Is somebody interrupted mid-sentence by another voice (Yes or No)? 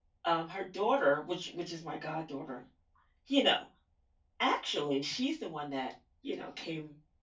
No